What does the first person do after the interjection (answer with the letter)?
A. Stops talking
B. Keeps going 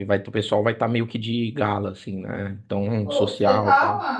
A